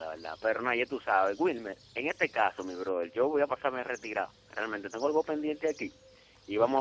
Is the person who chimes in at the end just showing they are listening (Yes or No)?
Yes